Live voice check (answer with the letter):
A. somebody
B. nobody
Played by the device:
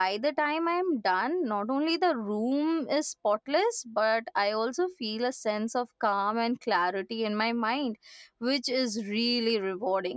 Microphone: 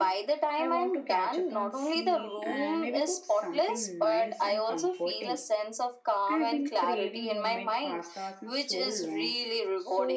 A